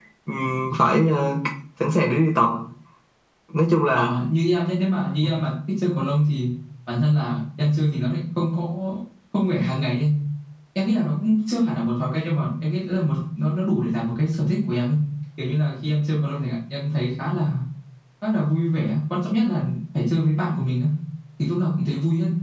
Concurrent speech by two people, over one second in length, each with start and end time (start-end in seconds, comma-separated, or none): none